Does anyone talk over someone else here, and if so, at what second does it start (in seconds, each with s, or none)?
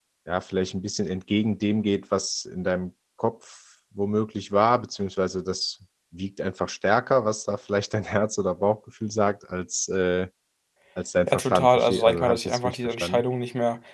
11.3 s